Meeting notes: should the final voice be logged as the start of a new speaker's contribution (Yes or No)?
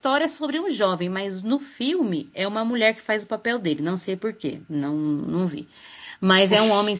No